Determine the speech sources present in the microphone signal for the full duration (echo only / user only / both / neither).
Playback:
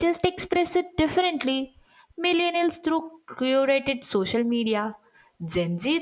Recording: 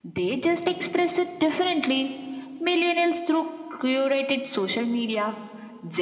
echo only